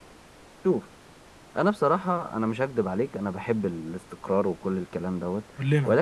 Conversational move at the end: listening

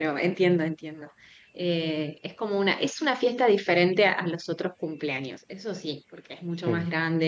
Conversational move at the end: listening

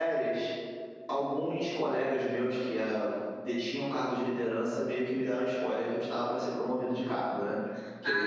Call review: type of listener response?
listening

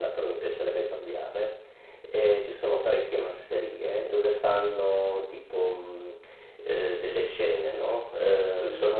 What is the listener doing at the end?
listening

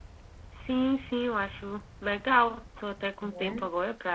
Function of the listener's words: listening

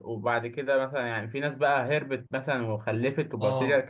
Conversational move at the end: taking over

